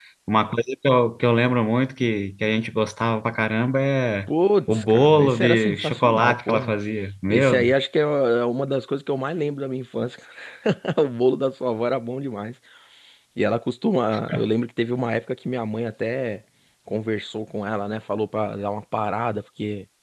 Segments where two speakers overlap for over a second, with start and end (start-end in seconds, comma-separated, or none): 4.7-6.7